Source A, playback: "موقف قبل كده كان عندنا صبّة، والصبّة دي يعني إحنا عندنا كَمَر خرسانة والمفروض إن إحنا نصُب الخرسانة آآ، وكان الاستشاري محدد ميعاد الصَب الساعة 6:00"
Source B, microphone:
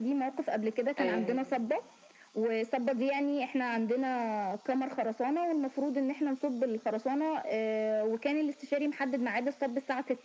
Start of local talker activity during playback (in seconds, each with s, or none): 1.0 s